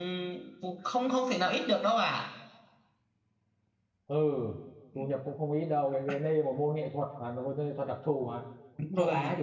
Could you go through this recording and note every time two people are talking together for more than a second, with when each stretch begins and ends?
none

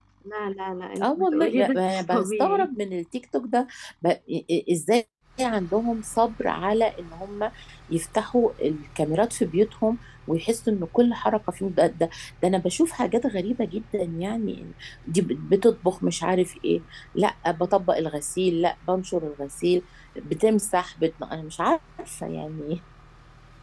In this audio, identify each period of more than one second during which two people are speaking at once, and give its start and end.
1.0-2.7

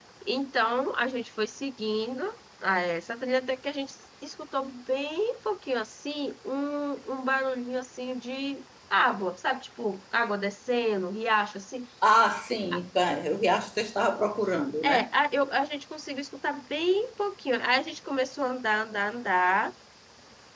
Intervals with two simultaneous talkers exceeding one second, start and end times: none

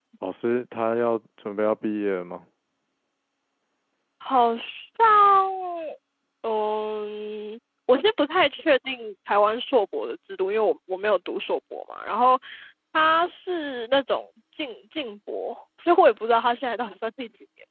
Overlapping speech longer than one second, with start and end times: none

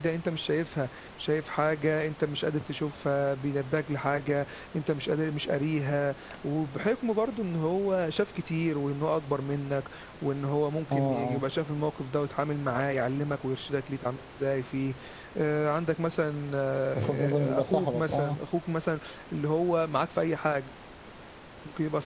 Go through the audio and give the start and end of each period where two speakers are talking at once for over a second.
17.0-18.4

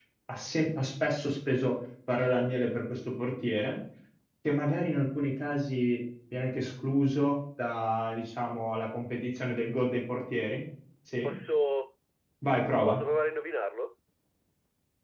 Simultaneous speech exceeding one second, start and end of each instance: none

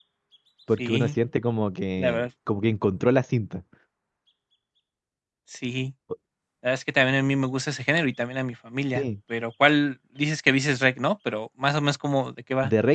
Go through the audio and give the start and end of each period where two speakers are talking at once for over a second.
none

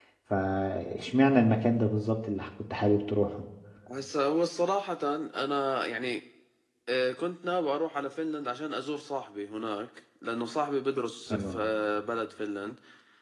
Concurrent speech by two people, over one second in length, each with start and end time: none

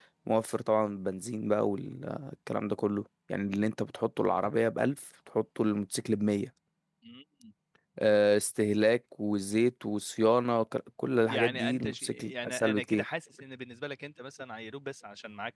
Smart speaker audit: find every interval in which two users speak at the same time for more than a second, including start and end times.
11.3-13.0

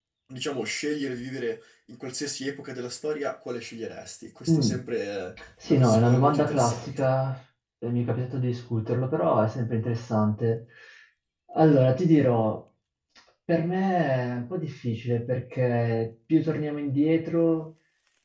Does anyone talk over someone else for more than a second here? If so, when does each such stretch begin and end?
5.6-7.1

